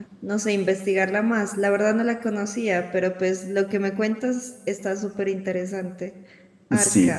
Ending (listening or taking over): taking over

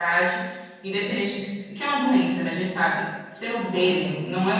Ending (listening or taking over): listening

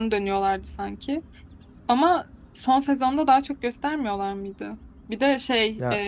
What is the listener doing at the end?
listening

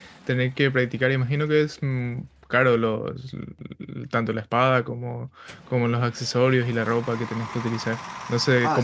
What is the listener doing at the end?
taking over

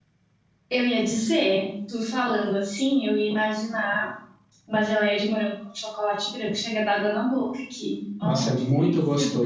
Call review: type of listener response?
taking over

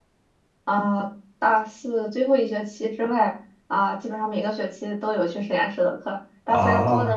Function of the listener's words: listening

